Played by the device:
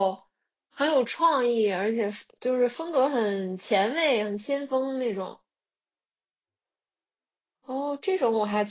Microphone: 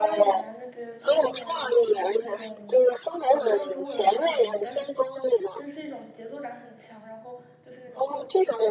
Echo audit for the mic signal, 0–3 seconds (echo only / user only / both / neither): both